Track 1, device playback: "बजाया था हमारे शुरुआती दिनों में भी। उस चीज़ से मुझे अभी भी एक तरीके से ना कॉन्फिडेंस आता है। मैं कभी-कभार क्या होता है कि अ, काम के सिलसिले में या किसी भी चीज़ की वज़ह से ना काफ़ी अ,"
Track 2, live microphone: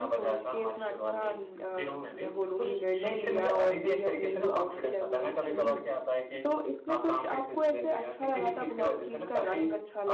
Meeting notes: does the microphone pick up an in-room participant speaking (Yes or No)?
Yes